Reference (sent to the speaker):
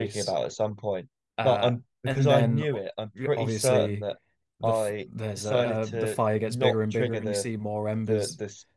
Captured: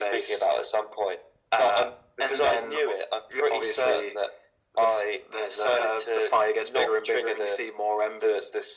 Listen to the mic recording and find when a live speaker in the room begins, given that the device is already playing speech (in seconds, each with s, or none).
none